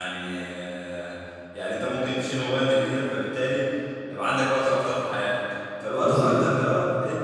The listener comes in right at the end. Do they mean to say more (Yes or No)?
No